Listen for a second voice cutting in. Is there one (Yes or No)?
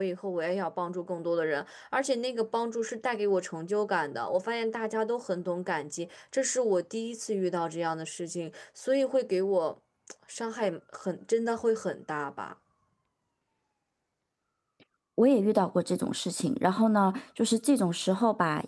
No